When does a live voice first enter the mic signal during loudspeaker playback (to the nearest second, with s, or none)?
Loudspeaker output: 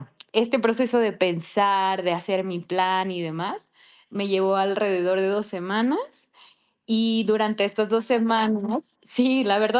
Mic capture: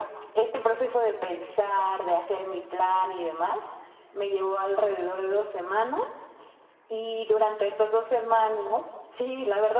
none